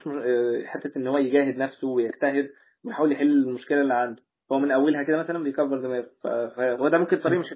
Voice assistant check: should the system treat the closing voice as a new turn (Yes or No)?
No